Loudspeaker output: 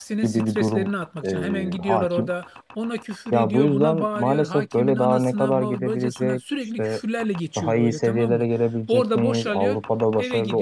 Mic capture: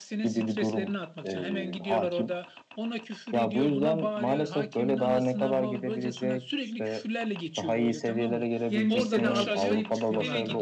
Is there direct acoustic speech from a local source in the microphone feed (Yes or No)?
Yes